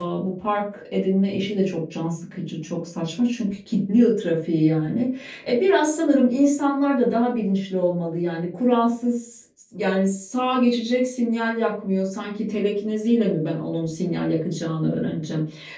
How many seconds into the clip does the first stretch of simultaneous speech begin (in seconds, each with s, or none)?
none